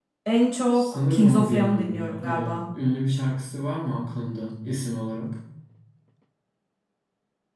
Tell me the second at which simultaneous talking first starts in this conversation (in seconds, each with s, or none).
0.8 s